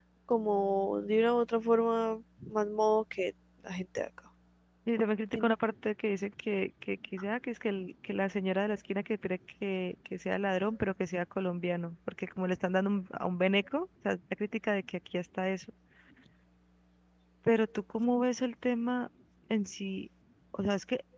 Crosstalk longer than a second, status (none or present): none